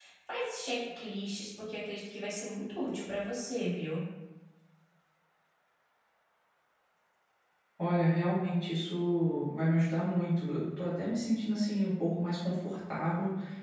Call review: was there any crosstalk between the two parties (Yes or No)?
No